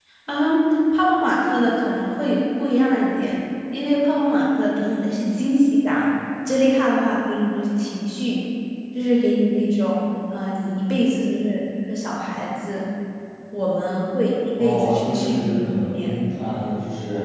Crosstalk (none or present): present